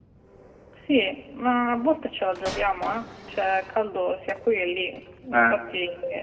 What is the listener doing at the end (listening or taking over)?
listening